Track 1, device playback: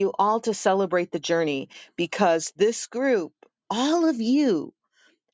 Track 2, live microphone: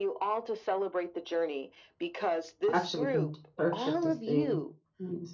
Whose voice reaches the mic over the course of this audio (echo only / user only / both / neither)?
both